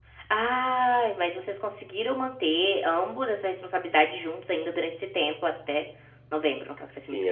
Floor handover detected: Yes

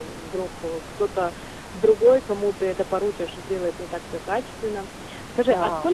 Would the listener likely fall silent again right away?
Yes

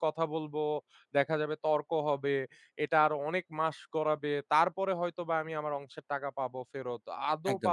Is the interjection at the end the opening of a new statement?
No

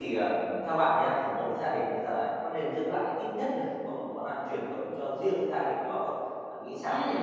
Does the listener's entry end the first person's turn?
Yes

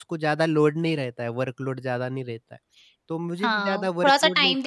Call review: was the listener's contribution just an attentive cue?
No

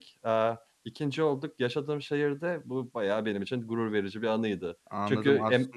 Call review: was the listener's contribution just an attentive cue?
No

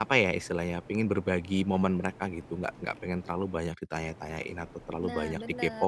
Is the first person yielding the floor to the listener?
No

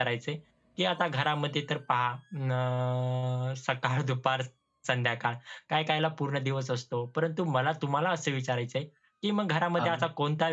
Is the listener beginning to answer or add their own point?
No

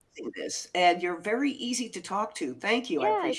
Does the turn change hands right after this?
Yes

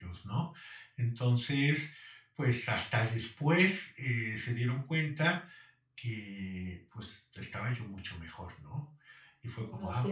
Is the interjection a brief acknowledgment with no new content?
Yes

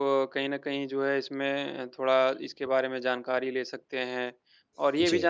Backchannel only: Yes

